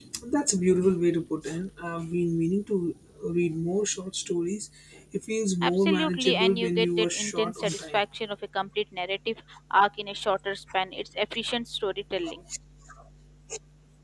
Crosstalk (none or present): present